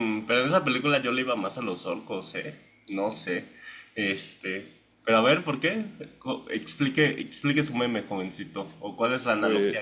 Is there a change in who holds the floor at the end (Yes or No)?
No